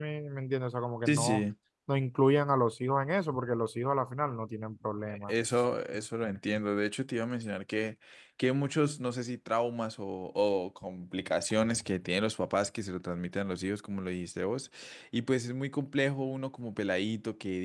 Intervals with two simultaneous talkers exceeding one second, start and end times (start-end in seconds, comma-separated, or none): none